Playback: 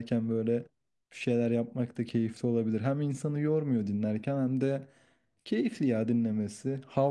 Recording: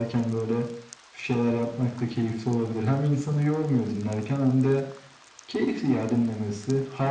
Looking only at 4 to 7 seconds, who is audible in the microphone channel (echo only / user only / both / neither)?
echo only